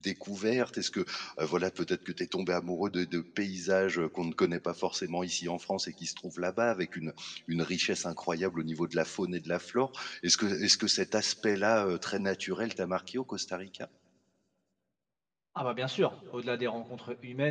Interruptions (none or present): none